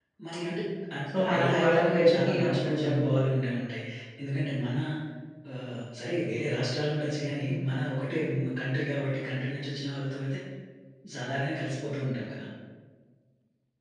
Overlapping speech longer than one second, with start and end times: 1.1-3.1

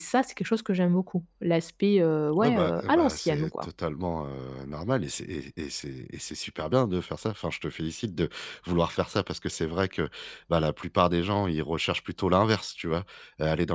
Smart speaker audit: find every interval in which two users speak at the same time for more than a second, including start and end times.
2.4-3.6

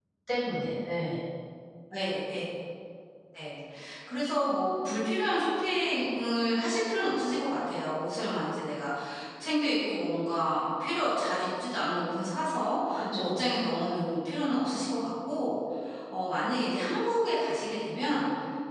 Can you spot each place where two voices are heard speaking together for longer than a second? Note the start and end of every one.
none

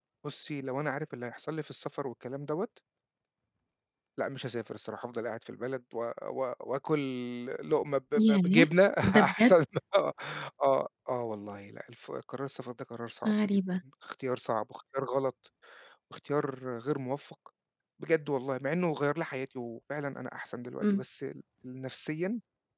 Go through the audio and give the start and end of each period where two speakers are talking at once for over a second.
none

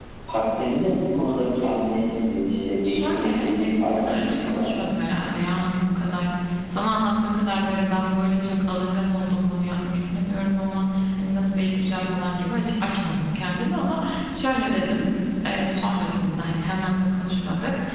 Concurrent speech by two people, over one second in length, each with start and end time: 2.8-4.7

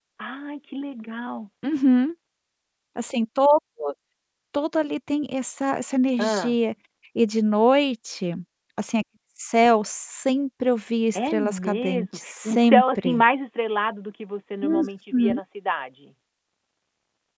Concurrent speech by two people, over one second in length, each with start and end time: 11.2-13.2

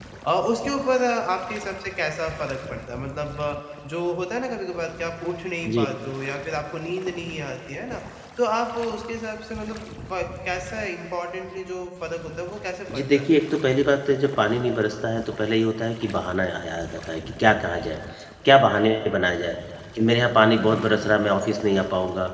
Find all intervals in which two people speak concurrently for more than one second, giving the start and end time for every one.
none

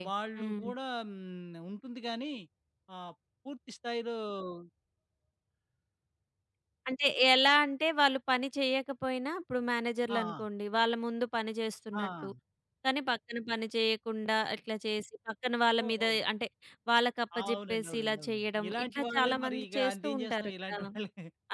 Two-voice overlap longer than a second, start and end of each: 17.4-20.9

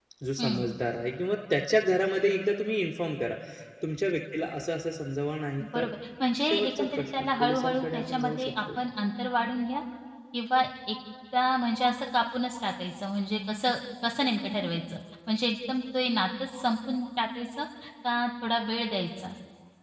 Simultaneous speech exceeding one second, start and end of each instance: 6.5-8.5

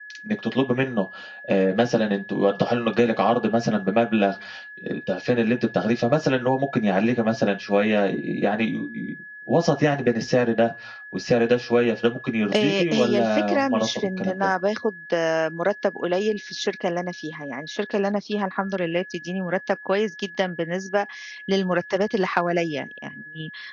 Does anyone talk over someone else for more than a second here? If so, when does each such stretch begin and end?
12.6-14.5

